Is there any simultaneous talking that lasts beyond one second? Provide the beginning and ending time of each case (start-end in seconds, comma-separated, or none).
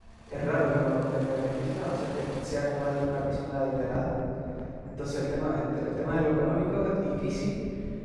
none